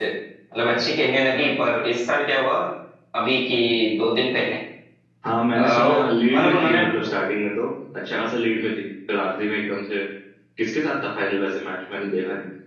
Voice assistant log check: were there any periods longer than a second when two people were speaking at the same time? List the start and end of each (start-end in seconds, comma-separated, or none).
5.5-6.8